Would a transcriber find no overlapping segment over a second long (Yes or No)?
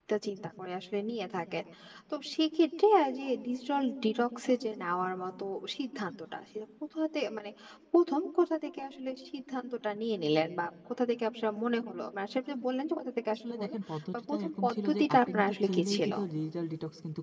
No